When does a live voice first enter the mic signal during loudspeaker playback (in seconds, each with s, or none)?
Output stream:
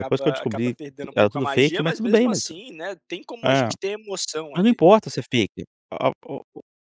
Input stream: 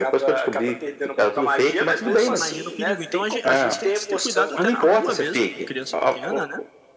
1.8 s